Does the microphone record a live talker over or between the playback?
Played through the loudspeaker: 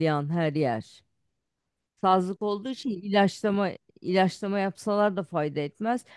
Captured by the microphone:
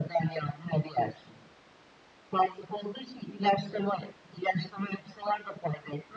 No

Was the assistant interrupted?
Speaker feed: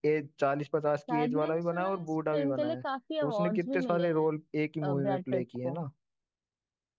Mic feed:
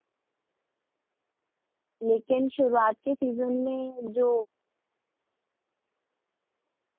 Yes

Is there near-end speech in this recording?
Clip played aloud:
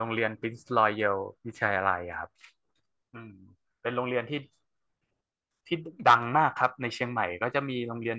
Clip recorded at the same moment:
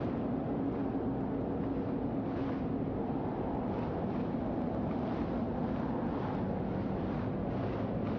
No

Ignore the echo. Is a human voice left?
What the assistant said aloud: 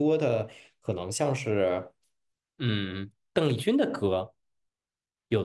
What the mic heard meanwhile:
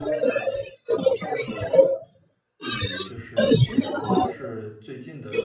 Yes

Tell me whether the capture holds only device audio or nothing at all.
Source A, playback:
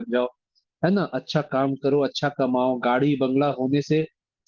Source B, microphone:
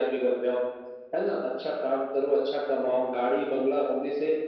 Yes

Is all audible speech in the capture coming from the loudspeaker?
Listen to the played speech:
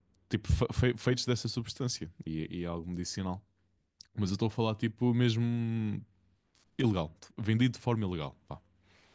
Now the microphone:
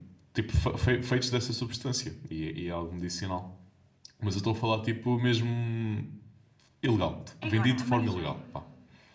No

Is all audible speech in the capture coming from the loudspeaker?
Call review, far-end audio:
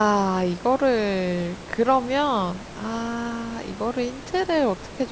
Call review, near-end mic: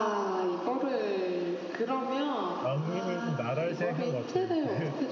No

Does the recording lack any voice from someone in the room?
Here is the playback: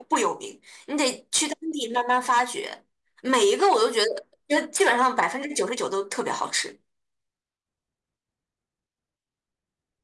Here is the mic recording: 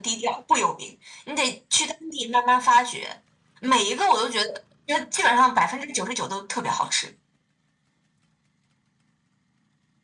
Yes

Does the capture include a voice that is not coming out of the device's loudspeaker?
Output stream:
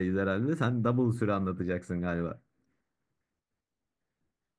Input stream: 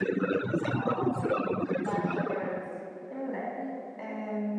Yes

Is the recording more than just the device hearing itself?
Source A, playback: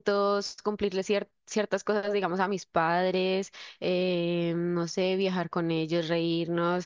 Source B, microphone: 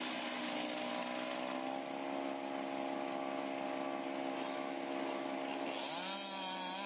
No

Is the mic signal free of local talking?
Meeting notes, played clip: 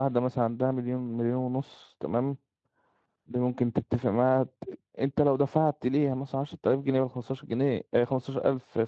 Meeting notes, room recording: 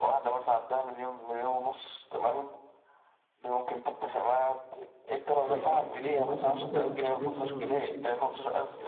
No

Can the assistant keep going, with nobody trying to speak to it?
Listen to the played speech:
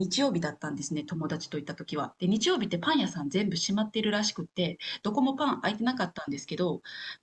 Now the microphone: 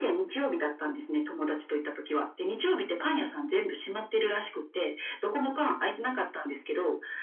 Yes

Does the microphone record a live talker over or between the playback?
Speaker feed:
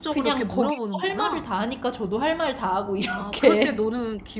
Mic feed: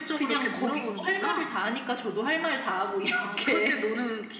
No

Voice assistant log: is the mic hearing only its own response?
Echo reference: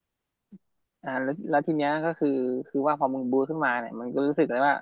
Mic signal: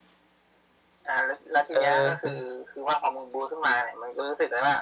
No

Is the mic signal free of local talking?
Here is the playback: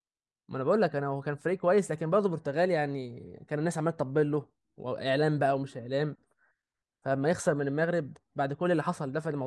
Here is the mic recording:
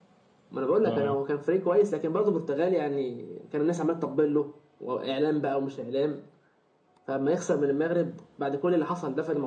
No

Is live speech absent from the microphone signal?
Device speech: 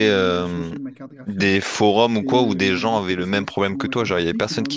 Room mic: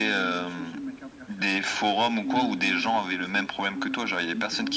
Yes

